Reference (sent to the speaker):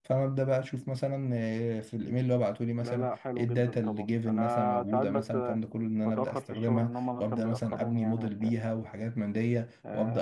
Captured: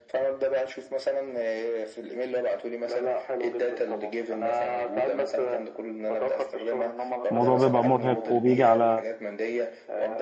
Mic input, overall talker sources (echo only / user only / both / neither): both